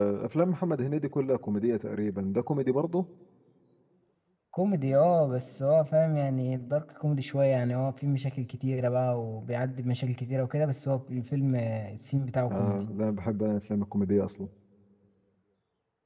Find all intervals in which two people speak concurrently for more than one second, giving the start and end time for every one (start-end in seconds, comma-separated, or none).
none